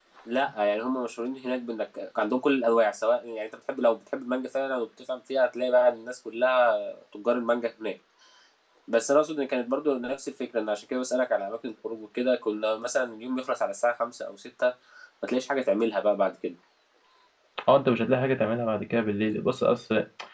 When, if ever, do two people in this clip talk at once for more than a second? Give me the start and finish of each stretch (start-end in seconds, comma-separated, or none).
none